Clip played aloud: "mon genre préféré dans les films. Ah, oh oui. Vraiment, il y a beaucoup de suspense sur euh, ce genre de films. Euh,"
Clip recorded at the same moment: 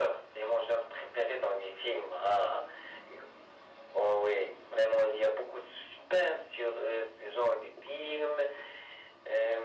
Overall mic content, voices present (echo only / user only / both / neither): echo only